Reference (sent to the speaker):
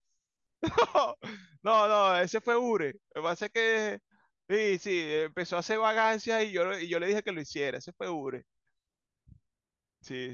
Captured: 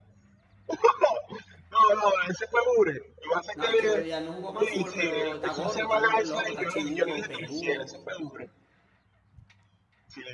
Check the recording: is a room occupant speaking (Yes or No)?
Yes